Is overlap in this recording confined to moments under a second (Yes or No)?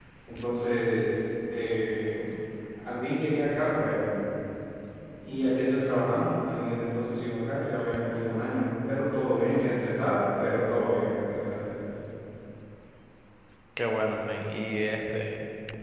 Yes